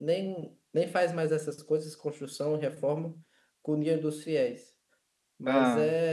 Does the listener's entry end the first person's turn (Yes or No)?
No